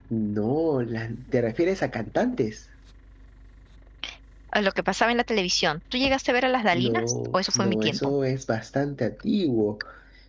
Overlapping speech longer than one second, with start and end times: 6.7-8.1

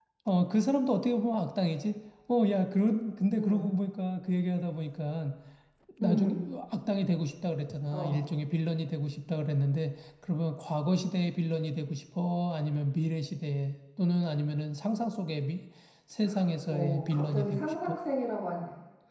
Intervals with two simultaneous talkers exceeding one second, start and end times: 16.7-18.0

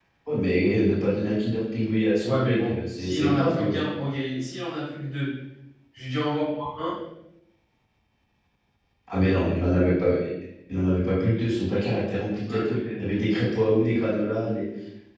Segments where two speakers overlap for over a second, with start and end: 2.2-3.8

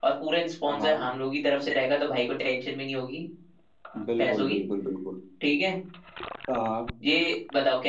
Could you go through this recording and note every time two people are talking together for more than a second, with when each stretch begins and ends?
none

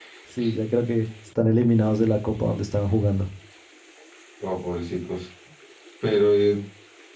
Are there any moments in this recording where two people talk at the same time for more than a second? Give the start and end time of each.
none

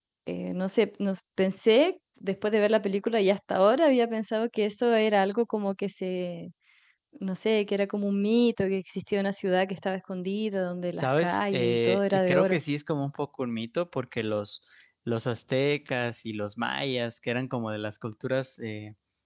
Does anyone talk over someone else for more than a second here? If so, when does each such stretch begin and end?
10.9-12.6

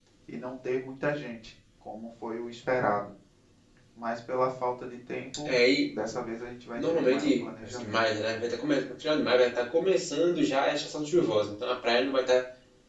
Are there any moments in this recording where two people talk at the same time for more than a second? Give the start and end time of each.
6.8-8.0

